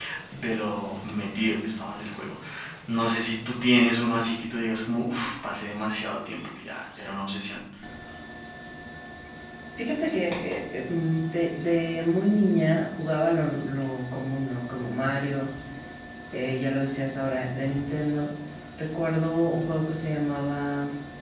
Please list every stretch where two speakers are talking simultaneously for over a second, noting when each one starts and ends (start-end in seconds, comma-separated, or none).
none